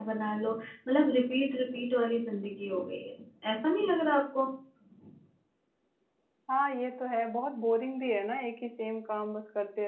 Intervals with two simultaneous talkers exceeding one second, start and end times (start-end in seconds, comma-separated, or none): none